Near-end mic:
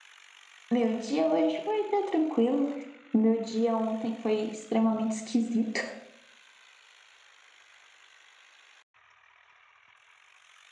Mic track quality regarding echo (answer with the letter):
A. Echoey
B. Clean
B